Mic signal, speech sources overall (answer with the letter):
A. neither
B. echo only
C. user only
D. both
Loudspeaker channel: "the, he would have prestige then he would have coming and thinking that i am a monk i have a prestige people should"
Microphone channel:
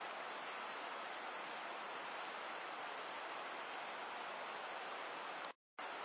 A